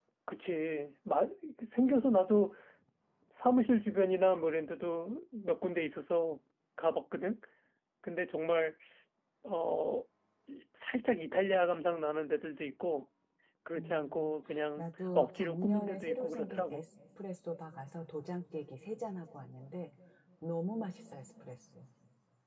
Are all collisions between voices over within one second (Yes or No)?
No